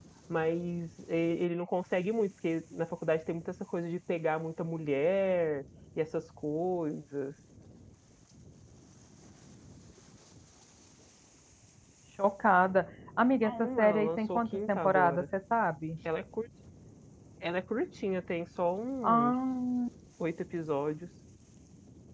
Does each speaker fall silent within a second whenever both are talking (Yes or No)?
No